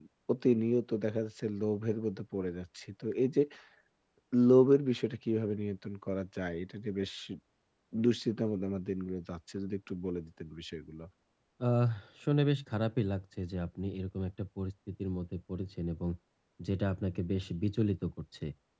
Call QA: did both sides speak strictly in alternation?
Yes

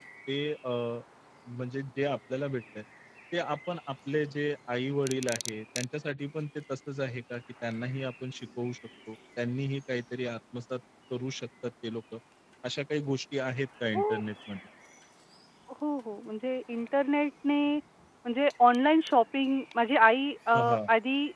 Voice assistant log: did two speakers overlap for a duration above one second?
No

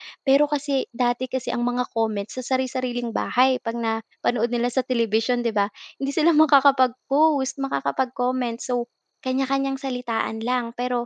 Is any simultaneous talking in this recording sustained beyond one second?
No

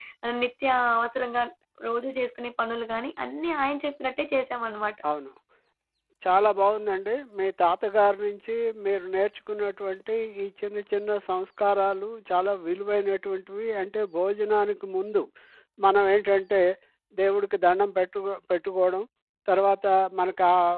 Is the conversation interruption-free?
Yes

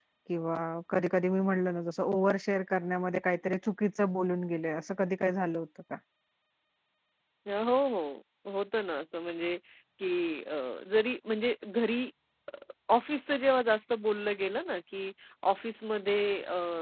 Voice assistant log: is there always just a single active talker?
Yes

